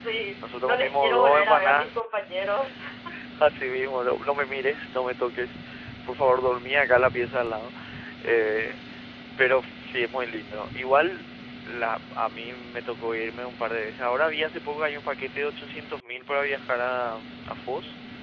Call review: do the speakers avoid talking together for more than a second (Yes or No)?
No